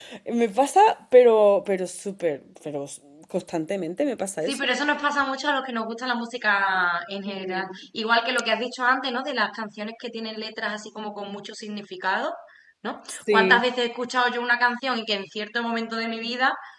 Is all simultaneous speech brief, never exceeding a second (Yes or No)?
Yes